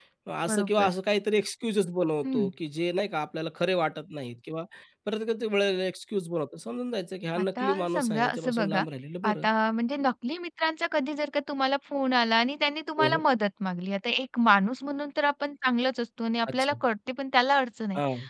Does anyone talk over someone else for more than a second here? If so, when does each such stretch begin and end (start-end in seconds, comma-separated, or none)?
7.4-8.8